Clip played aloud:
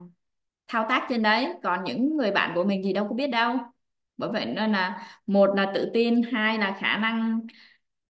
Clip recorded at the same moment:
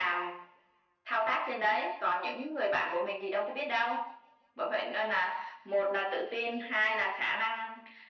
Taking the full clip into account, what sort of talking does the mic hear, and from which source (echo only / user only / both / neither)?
echo only